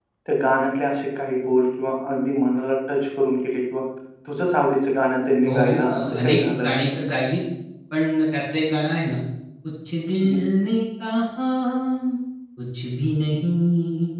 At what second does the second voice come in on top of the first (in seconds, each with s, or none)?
5.5 s